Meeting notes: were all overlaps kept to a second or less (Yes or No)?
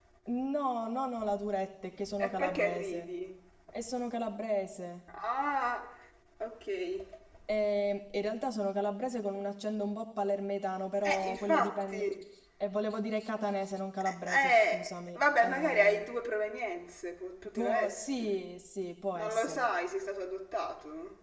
No